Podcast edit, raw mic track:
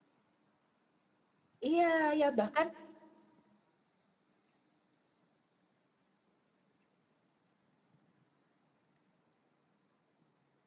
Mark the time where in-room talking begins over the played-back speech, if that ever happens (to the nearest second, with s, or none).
2 s